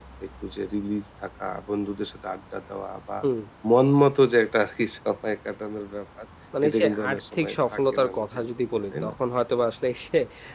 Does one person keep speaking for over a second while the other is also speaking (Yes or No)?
Yes